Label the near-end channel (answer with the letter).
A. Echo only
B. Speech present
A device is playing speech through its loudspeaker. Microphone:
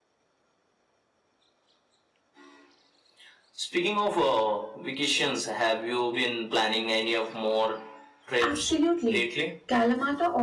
B